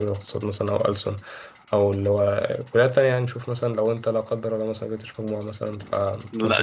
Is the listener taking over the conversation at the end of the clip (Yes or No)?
Yes